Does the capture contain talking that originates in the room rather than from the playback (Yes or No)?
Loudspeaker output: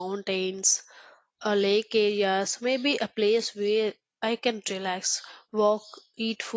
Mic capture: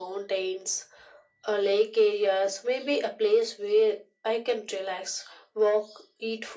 No